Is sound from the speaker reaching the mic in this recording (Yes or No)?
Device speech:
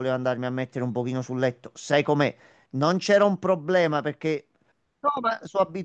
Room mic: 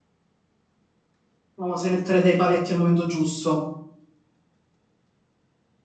No